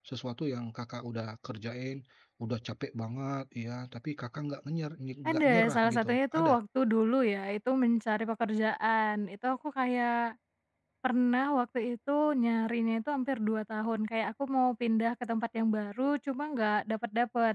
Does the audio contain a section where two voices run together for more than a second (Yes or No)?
Yes